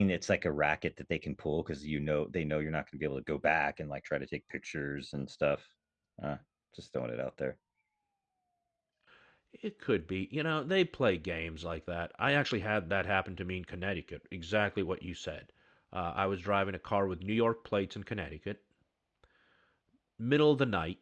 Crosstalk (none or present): none